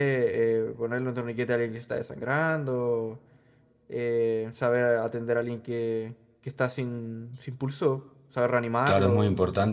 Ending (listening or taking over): taking over